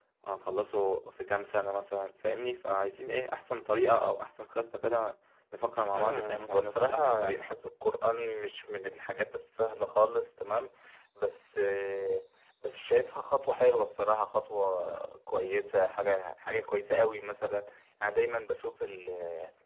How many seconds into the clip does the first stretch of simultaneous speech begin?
5.9 s

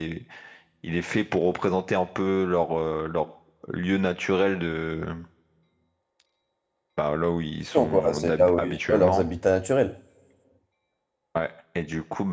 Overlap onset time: 7.7 s

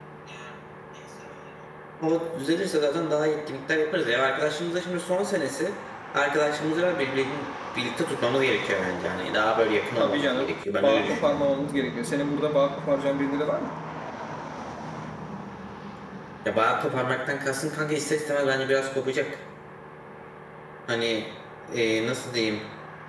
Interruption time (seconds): 10.0 s

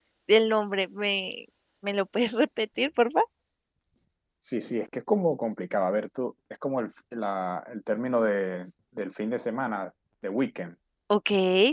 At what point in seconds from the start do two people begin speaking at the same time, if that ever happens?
none

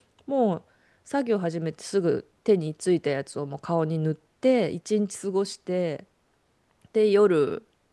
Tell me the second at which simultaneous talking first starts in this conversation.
none

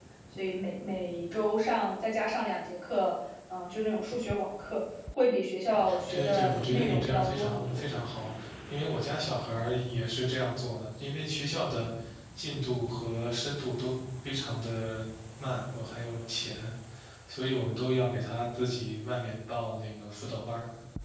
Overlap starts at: 5.8 s

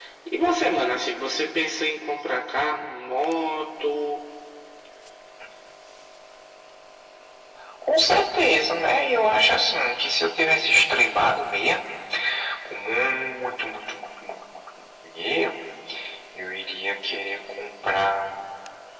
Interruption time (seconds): none

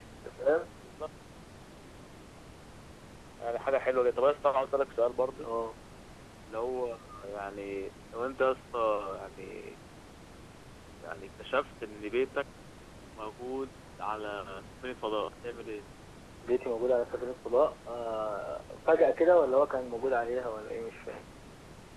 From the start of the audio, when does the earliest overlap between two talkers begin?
none

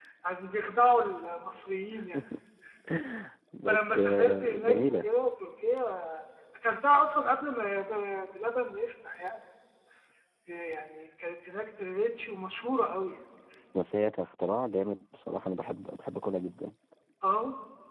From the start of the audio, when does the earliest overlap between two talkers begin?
3.6 s

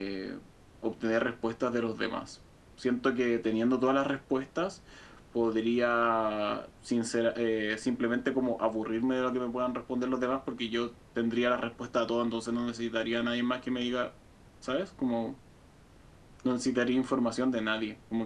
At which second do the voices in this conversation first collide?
none

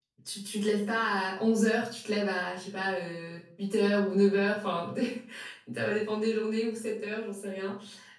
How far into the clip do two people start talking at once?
none

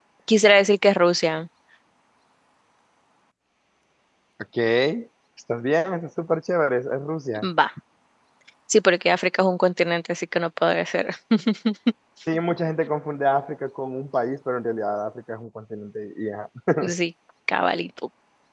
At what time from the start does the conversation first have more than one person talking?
none

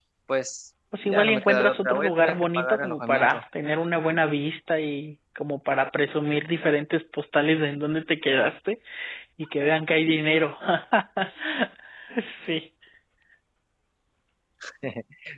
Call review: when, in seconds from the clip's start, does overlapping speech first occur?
1.0 s

